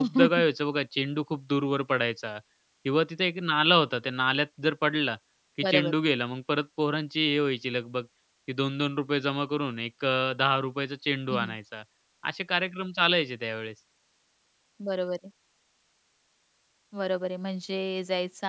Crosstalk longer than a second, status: none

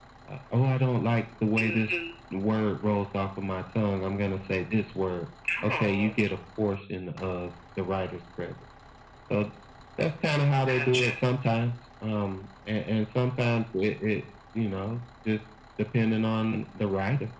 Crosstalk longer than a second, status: none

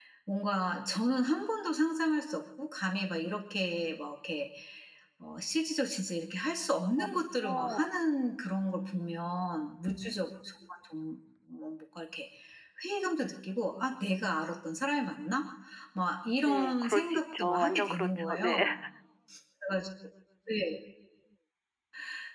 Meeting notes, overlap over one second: present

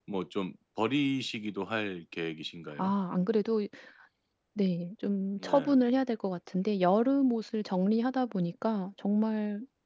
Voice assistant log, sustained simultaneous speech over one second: none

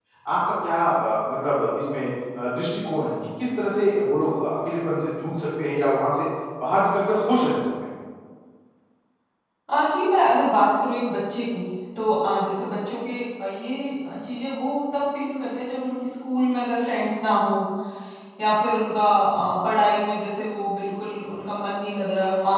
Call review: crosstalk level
none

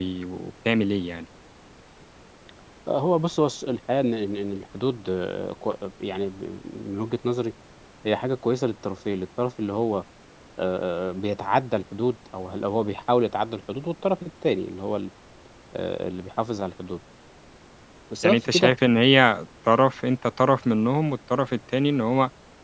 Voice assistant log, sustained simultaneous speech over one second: none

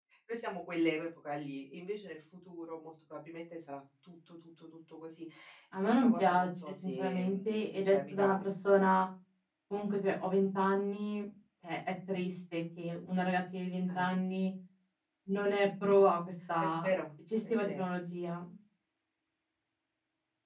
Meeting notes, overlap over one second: present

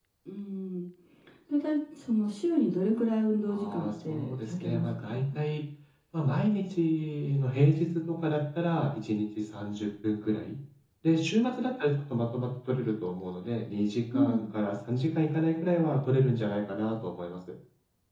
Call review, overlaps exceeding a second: present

